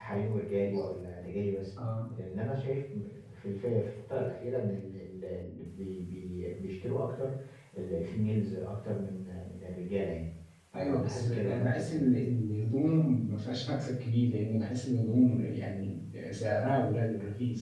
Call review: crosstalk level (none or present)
present